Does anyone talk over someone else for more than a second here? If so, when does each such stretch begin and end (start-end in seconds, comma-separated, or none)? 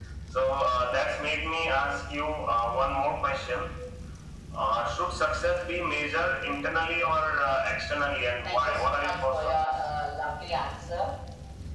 8.4-9.7